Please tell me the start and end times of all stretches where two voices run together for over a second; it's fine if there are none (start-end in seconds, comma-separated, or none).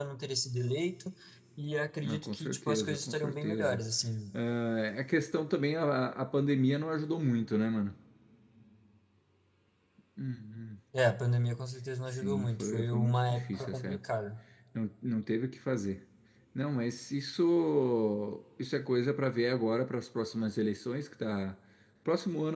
2.0-3.8, 12.2-14.0